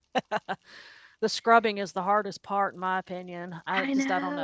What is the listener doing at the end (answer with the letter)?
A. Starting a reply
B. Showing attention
B